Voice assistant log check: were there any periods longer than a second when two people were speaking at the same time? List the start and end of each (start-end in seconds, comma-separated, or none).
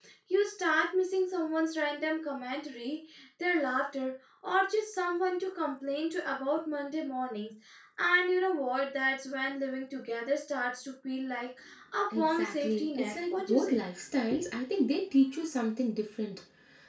12.2-13.8